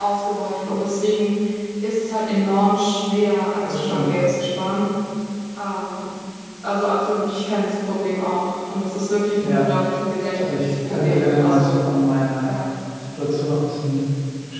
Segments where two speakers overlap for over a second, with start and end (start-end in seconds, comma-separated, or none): 10.3-11.8